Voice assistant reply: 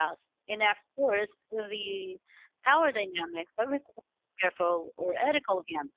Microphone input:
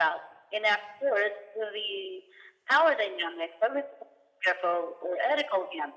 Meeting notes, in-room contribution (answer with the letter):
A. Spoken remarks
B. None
B